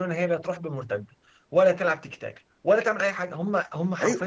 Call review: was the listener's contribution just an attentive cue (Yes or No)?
No